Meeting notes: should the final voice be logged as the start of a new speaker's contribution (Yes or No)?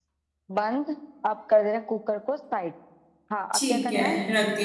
Yes